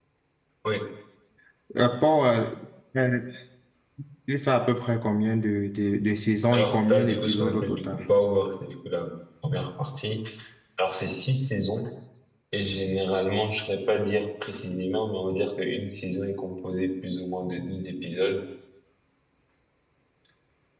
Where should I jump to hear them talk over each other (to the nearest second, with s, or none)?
7 s